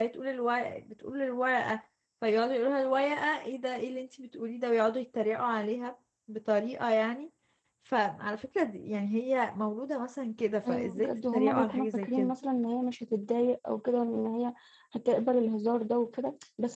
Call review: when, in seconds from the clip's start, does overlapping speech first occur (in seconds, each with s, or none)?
10.6 s